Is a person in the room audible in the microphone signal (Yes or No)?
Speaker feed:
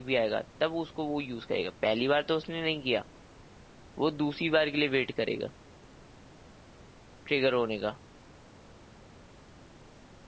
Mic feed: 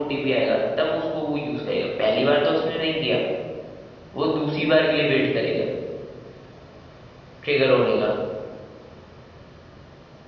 No